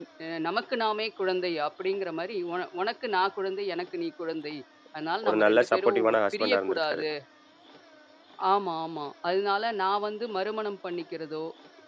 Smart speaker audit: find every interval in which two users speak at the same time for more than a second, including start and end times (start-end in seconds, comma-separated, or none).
5.2-7.0